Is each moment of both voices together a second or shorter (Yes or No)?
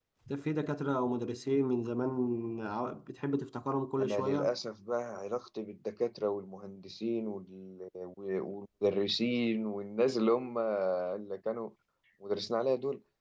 Yes